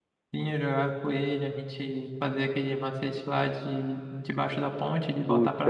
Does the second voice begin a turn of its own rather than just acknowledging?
Yes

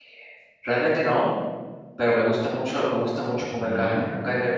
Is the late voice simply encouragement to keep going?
Yes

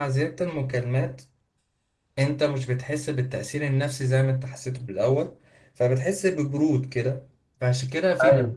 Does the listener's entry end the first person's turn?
No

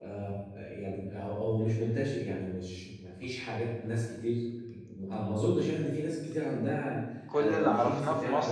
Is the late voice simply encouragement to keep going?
No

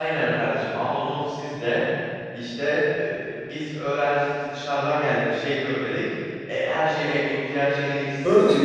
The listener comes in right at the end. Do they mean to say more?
Yes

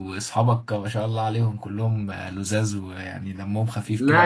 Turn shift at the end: Yes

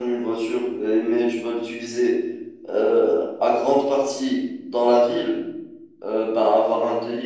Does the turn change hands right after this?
No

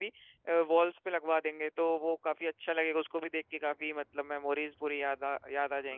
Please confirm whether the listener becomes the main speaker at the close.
Yes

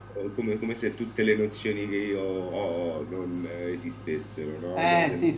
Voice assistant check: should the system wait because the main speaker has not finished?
No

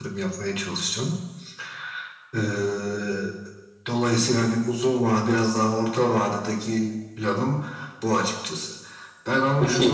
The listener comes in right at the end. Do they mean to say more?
No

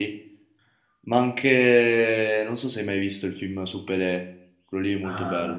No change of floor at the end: No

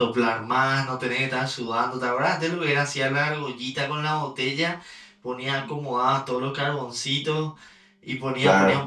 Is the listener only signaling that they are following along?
Yes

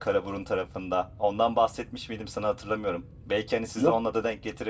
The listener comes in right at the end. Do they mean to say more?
No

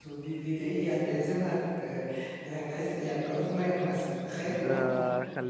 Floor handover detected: Yes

